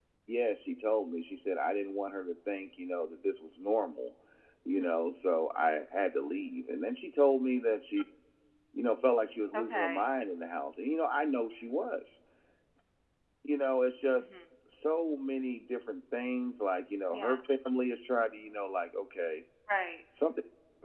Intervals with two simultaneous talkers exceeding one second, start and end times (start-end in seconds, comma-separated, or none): none